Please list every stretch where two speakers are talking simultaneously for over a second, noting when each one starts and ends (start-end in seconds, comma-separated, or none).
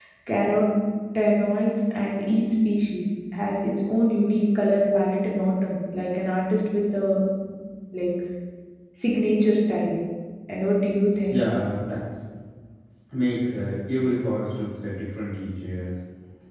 none